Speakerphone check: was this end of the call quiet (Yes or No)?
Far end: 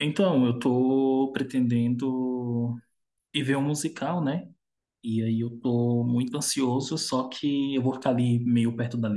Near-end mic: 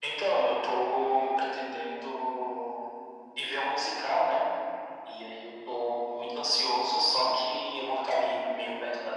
Yes